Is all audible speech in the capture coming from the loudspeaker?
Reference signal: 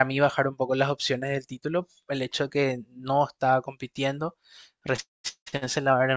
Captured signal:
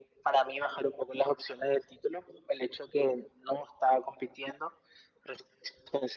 Yes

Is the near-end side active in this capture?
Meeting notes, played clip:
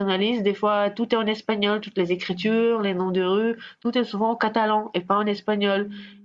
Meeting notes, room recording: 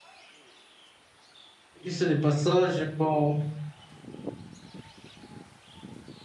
Yes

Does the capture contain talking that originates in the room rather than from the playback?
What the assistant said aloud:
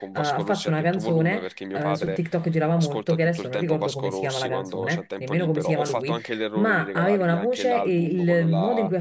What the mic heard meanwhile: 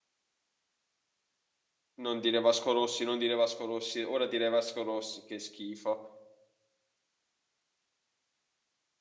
Yes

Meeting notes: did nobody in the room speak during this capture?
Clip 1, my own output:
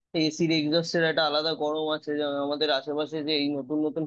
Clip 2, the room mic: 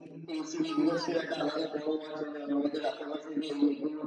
No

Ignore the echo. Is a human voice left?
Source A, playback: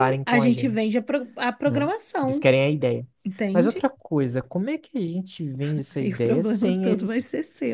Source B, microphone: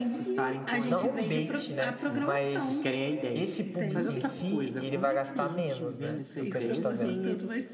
Yes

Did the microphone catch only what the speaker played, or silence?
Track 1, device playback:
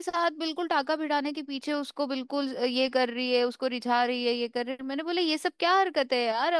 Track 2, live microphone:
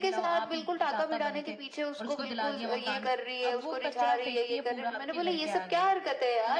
No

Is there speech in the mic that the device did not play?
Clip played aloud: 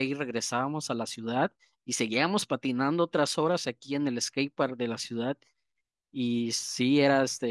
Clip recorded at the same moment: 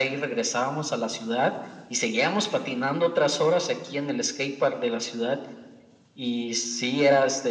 No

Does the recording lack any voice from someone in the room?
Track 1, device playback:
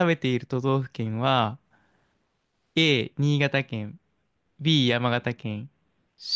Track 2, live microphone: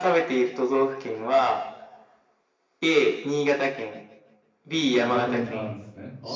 No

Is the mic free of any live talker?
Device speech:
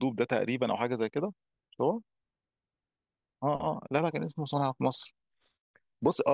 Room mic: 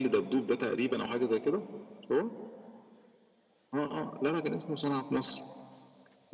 Yes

